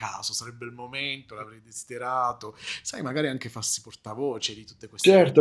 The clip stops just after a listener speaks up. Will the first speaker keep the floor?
No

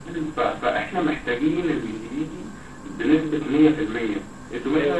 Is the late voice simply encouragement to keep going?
Yes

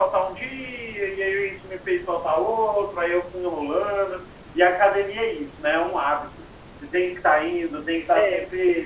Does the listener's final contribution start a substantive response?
No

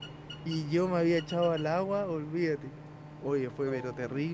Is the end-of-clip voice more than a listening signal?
No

